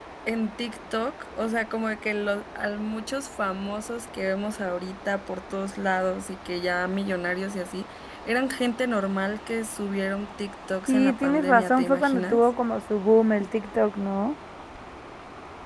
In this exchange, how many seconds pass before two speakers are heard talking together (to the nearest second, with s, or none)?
11 s